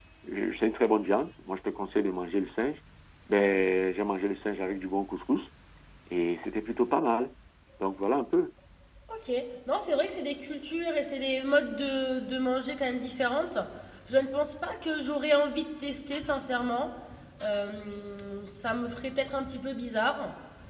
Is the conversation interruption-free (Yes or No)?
Yes